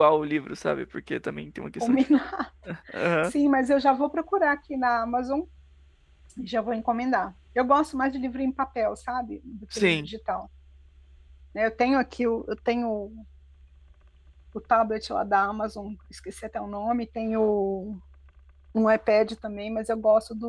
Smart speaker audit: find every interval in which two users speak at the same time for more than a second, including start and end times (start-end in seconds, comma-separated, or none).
none